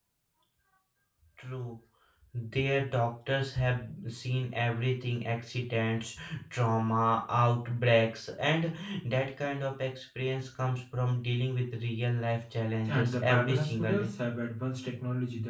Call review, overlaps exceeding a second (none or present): present